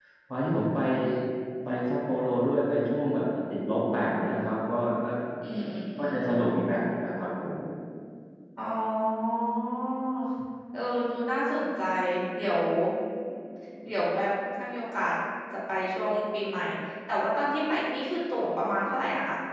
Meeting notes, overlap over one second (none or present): none